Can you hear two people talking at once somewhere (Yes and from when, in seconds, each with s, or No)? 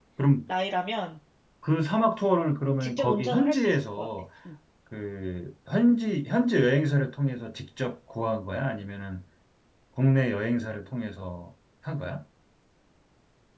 Yes, from 2.8 s